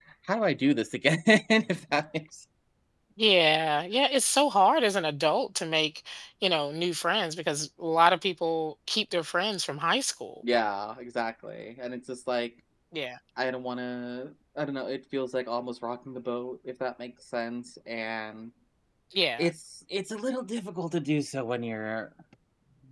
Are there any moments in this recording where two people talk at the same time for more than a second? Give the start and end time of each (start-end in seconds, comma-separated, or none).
none